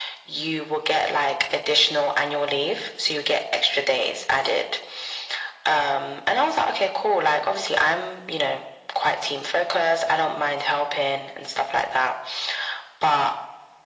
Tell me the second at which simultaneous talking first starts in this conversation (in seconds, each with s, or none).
none